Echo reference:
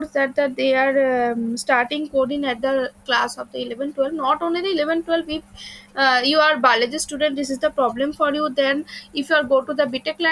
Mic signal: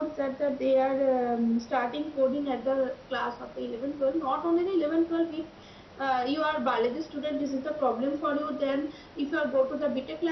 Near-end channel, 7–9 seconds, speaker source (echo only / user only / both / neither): echo only